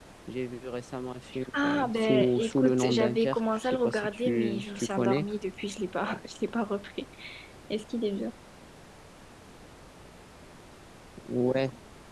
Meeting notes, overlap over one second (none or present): present